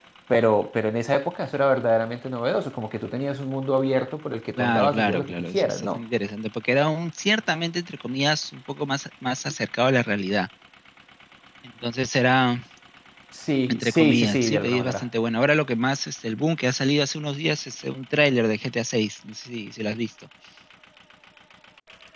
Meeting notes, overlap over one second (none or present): present